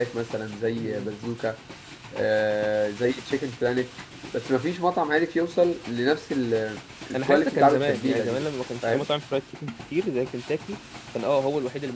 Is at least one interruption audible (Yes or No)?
Yes